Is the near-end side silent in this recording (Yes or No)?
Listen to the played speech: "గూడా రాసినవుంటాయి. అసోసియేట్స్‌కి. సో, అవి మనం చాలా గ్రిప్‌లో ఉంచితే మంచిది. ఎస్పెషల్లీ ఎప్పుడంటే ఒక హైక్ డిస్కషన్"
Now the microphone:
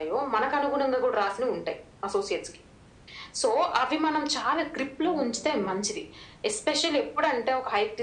No